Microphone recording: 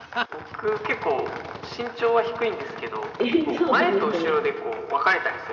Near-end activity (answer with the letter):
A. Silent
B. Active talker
B